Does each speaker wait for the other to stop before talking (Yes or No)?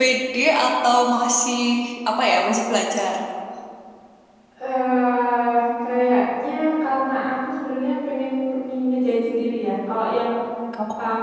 Yes